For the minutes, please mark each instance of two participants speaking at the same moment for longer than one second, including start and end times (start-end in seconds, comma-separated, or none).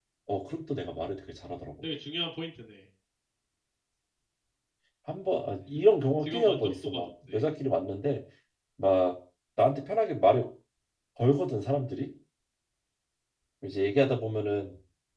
6.2-7.4